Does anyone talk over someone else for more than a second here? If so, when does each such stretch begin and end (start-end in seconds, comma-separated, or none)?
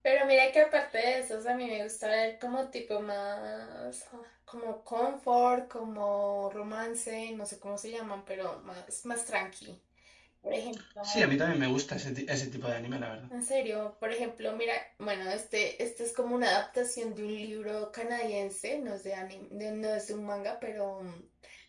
none